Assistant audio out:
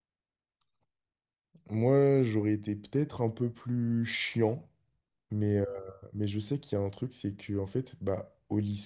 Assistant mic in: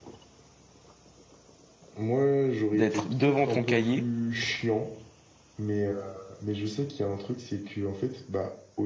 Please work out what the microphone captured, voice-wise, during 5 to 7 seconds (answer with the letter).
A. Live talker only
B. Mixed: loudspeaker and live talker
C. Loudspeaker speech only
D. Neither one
C